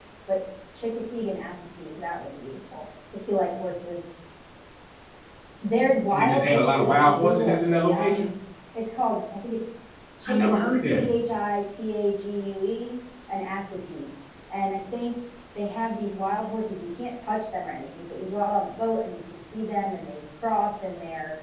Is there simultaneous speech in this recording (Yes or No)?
Yes